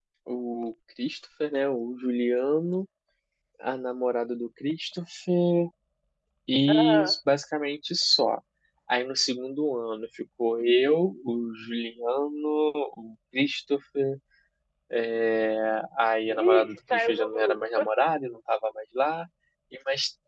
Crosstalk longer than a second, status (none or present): present